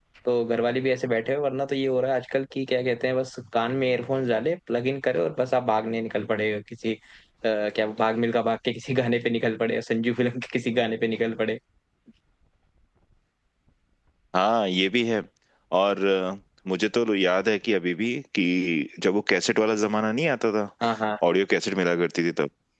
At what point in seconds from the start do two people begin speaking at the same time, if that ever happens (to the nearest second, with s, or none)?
none